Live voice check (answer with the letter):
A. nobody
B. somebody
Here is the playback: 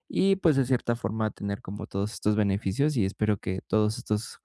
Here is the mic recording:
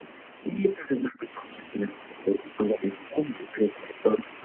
A